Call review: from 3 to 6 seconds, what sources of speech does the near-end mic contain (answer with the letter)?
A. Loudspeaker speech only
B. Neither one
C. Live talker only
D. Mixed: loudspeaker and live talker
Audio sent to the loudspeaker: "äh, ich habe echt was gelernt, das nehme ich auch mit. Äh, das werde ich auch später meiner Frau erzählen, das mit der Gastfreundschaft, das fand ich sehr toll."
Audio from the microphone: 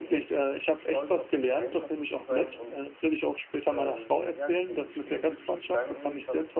D